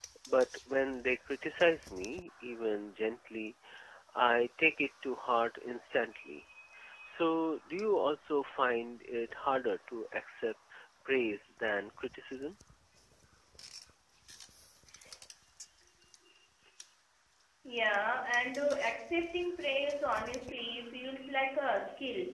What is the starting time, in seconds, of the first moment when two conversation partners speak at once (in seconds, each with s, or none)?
none